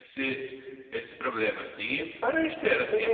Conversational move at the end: taking over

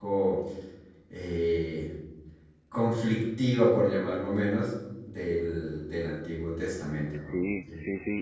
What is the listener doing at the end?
taking over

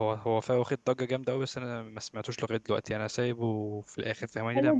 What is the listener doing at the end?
taking over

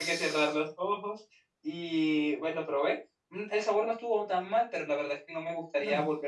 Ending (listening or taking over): listening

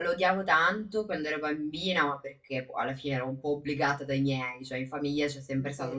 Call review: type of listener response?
listening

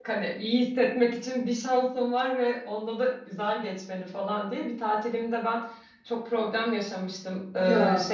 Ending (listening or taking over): listening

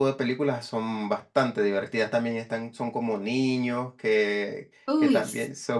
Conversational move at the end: listening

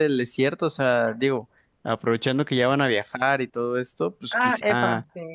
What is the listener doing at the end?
taking over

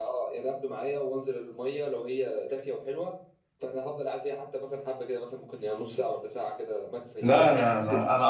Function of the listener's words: taking over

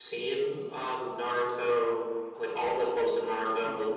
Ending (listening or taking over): taking over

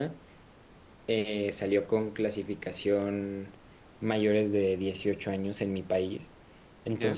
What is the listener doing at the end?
listening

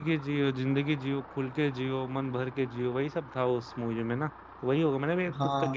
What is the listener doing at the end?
taking over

